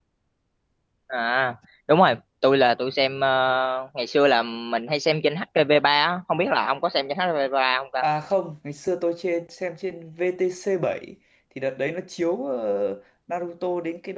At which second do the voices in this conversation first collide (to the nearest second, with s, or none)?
none